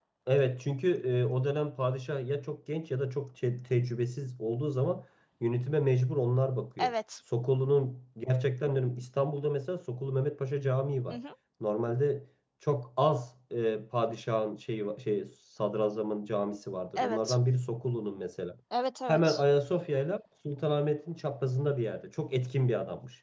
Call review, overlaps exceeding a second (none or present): none